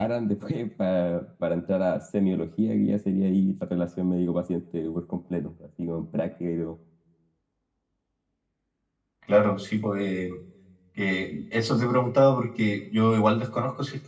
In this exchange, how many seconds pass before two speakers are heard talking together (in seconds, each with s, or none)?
none